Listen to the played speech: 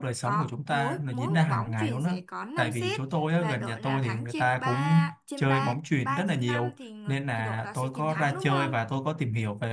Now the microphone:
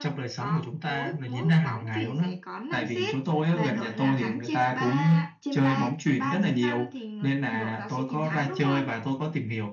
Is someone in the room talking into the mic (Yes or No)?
No